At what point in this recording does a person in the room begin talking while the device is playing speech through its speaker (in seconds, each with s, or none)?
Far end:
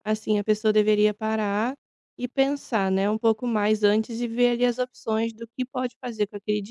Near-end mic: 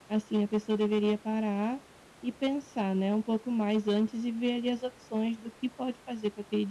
none